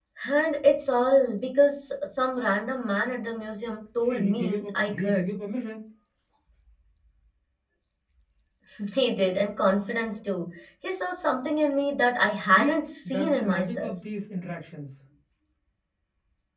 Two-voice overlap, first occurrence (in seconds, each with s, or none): 4.0 s